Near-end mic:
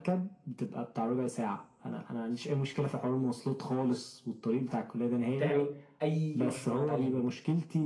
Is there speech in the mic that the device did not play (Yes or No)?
Yes